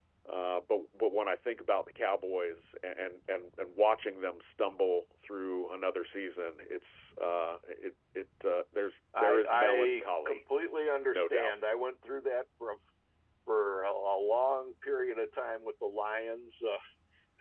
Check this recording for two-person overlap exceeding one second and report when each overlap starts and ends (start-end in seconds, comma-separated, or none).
9.2-10.4